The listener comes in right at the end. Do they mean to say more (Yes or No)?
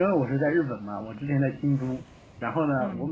No